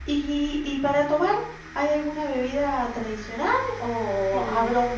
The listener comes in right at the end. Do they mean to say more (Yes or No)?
No